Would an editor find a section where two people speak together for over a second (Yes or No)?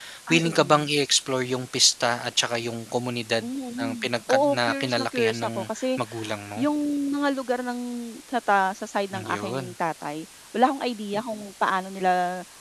Yes